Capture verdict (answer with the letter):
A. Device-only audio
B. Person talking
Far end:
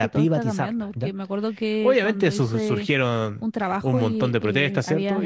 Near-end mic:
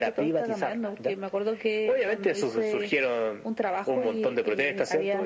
A